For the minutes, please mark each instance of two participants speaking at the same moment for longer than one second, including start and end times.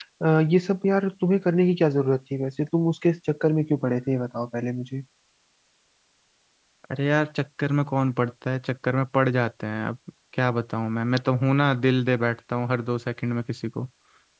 none

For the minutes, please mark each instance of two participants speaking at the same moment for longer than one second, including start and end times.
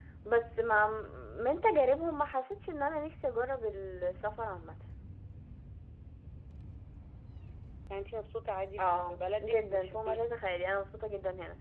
8.8-10.3

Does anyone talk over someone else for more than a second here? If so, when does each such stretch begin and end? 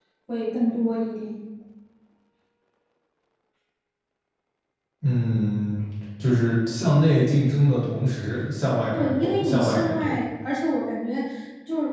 8.9-10.2

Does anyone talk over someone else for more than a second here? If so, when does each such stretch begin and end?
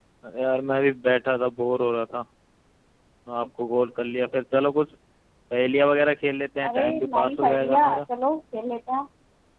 6.7-8.0

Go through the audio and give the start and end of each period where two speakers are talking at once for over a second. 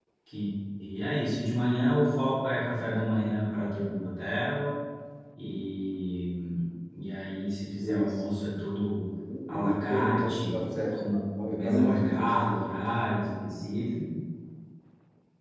9.5-12.5

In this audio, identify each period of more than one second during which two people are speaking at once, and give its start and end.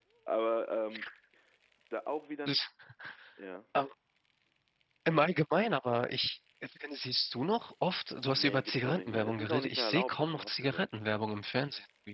8.3-10.9

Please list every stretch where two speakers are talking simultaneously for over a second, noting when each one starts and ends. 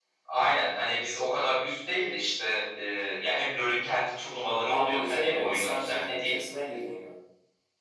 4.7-6.3

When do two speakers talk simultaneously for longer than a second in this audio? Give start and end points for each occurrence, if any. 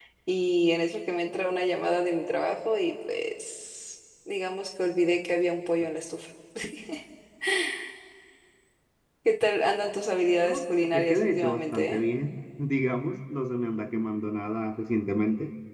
10.4-12.0

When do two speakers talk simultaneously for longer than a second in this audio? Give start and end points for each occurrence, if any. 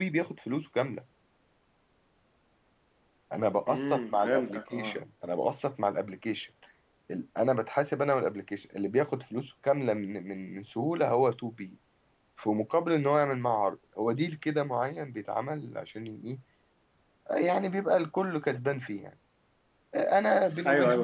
3.7-5.0

